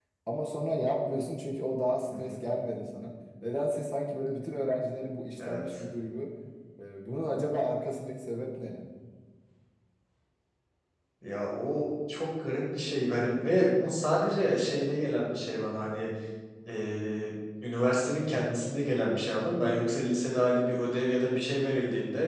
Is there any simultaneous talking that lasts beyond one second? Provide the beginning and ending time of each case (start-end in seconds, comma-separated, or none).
none